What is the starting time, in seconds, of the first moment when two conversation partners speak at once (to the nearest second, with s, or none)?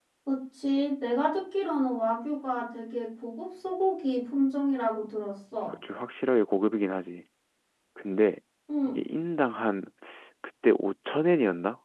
none